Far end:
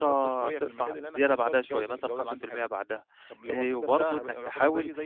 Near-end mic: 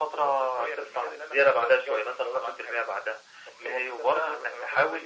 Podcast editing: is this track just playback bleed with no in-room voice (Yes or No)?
Yes